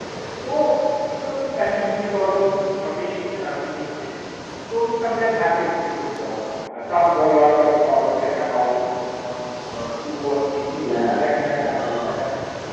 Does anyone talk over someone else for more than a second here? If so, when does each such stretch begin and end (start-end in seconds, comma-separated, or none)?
10.7-12.1